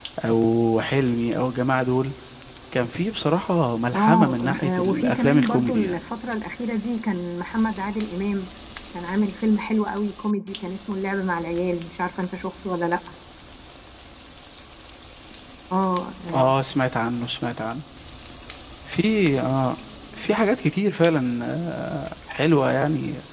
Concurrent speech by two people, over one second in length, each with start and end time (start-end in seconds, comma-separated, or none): 4.0-5.9